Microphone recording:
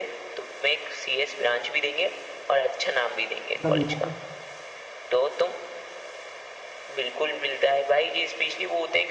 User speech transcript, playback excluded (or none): मतलब लोग